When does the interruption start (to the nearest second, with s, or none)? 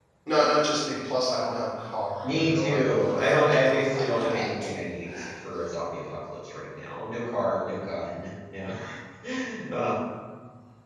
2 s